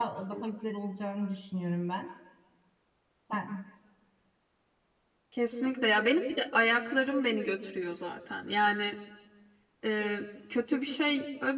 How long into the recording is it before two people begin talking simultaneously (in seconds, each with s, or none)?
none